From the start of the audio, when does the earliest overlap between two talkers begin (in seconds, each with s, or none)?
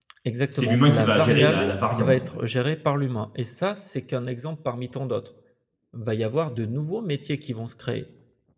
0.6 s